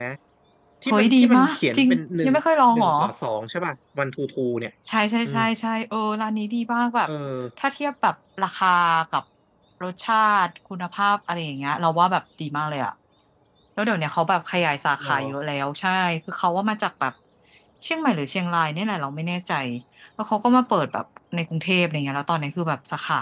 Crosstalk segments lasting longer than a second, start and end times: 0.9-2.3

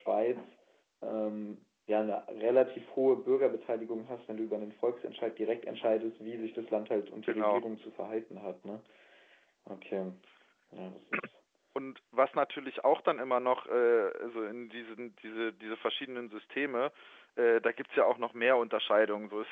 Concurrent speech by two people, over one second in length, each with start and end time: none

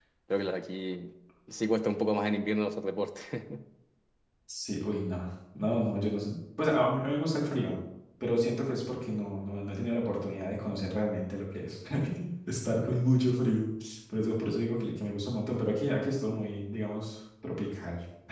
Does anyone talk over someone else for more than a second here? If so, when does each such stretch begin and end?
none

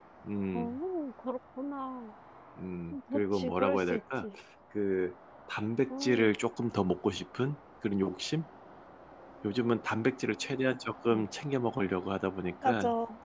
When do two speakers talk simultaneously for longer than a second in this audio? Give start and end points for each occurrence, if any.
2.9-4.2

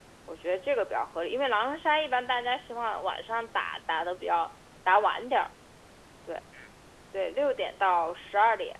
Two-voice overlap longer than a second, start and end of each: none

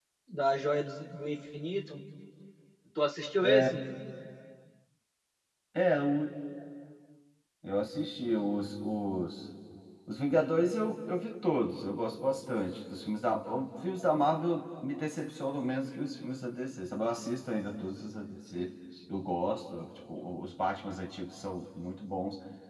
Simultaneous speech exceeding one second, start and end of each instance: none

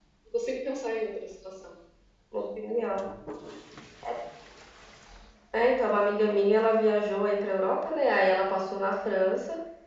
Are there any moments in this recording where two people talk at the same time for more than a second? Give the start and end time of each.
none

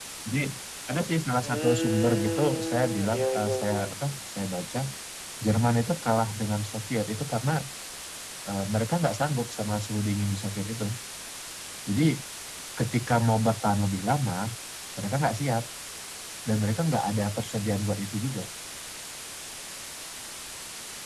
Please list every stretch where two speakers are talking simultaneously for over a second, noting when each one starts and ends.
1.4-3.8

